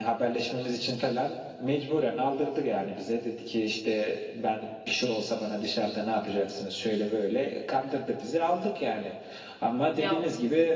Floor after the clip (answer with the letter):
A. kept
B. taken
A